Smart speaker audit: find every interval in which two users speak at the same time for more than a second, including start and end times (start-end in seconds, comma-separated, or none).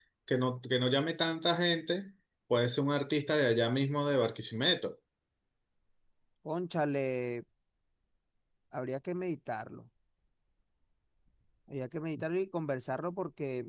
none